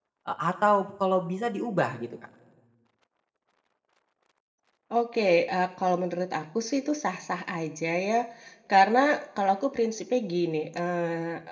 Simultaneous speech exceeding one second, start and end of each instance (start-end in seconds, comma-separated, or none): none